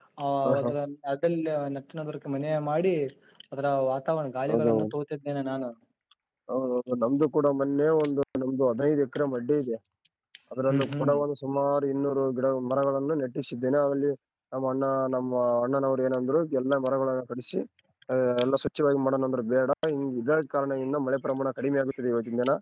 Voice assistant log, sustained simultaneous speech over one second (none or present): none